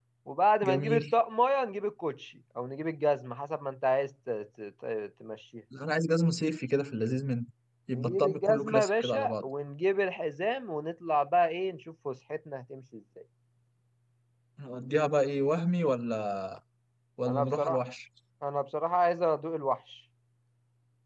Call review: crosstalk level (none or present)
present